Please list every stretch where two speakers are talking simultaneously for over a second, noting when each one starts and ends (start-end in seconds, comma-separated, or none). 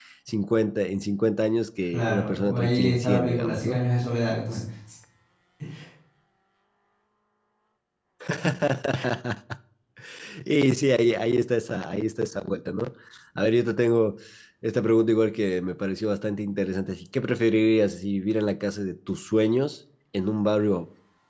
1.9-3.8